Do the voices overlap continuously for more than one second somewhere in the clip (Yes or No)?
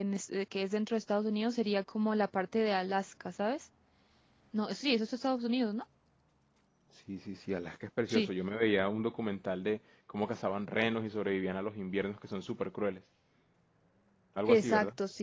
No